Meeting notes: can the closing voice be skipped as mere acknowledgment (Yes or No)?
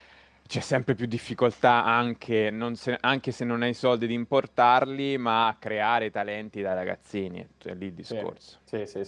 No